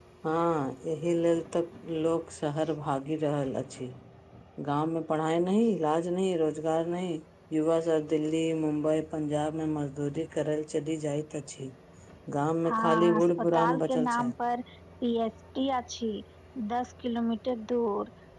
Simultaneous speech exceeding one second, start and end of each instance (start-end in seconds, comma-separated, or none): 12.7-14.3